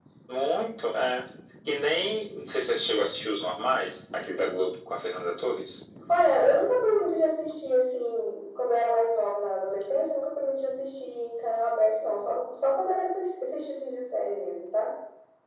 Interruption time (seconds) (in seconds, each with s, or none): none